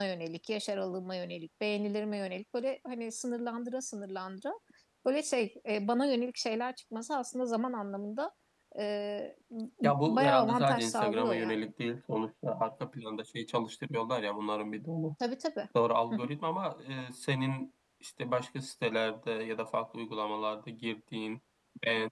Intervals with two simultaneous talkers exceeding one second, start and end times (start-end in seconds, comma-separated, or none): 10.0-11.7